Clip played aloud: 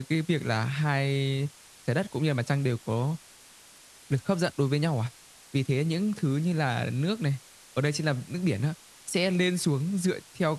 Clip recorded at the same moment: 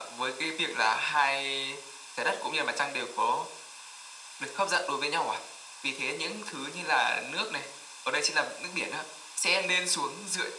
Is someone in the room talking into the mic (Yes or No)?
No